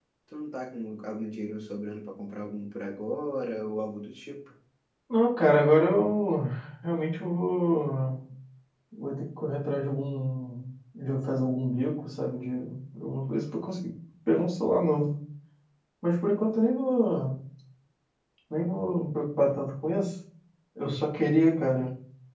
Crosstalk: none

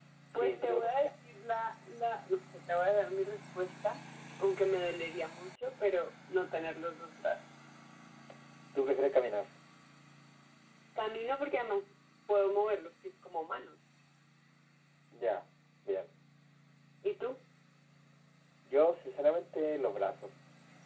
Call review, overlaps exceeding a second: none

